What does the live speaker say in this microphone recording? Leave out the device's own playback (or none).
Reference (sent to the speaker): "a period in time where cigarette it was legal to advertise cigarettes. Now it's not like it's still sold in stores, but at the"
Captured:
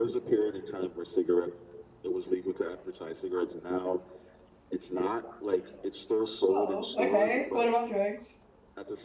Oh, okay. What about drugs?